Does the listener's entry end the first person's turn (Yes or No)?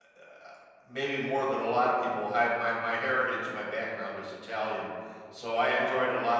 No